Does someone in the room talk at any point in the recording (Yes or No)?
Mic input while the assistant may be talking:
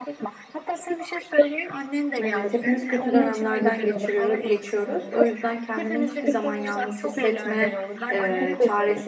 Yes